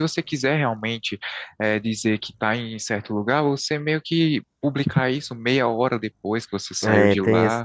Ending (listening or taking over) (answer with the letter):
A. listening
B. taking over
B